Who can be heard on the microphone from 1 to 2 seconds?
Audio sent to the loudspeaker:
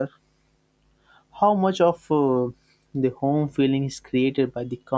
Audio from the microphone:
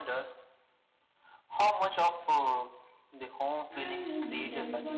echo only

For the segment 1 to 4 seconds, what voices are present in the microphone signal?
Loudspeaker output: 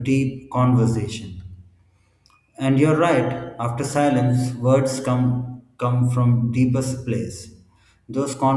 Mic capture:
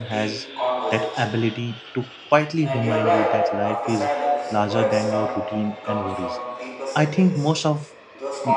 both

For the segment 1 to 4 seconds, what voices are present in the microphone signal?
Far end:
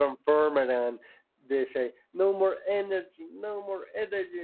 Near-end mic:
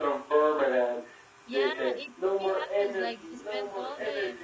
both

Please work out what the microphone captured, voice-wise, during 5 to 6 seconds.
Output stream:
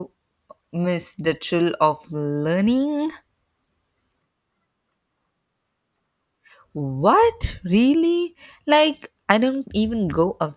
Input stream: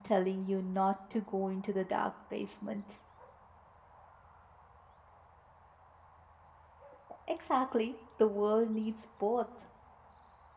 neither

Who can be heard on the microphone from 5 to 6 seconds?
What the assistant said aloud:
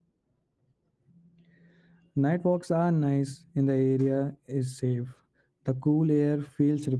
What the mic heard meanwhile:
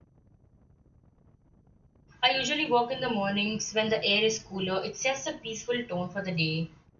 user only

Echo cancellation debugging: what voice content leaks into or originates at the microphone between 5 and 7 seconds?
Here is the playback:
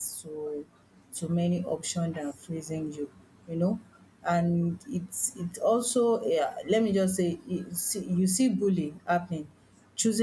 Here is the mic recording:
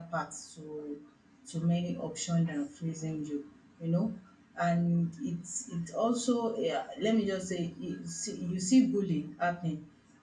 echo only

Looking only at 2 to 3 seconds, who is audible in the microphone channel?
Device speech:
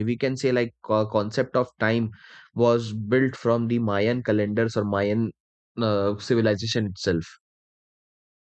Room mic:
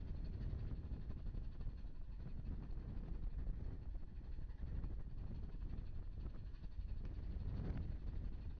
neither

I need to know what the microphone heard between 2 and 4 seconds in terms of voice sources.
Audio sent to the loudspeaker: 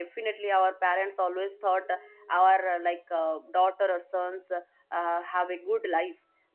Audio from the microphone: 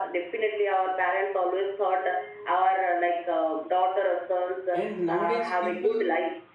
echo only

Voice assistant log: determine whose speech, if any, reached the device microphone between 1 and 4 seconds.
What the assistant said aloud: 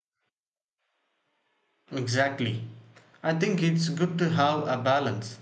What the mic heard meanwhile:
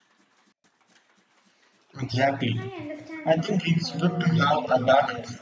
both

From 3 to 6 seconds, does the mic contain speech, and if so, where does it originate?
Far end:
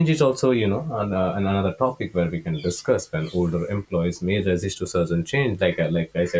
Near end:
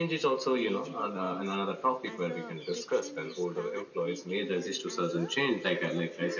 both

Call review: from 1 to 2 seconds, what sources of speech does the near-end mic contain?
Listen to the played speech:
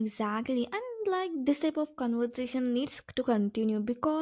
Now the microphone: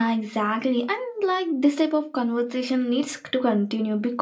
echo only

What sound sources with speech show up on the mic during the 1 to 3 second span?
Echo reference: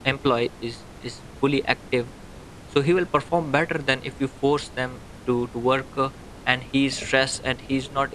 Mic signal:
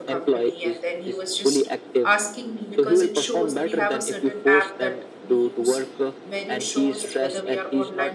both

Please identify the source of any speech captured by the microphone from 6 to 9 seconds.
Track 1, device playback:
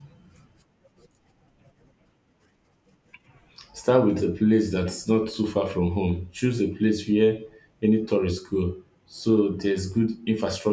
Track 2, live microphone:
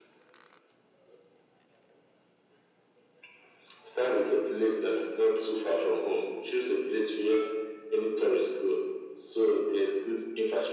echo only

